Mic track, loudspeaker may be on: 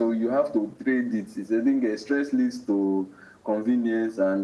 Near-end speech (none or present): none